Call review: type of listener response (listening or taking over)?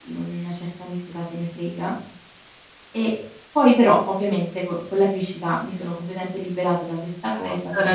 taking over